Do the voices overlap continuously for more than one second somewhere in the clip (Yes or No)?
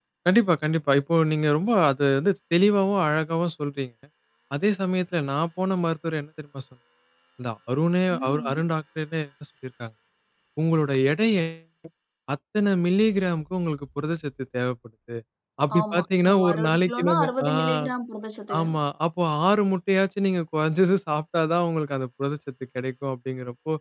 Yes